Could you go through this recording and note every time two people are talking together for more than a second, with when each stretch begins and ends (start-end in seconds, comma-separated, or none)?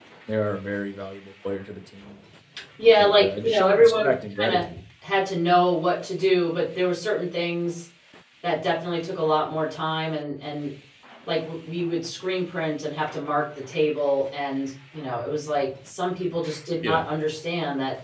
3.0-4.6